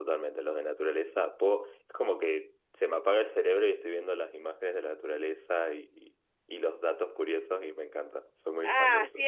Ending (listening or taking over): taking over